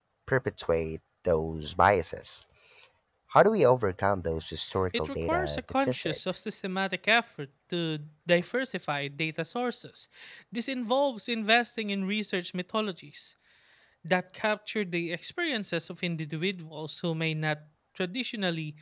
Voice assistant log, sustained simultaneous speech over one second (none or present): present